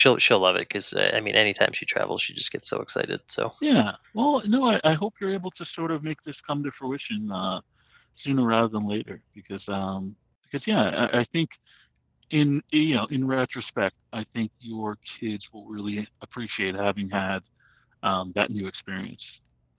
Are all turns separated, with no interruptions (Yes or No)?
Yes